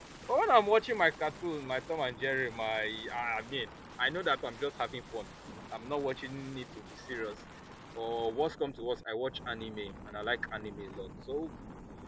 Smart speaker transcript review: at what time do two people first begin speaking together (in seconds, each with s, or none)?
none